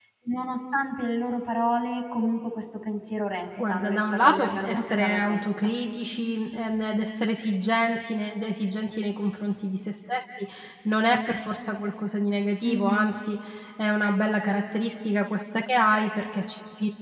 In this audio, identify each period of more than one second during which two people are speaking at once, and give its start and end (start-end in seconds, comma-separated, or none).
3.6-5.5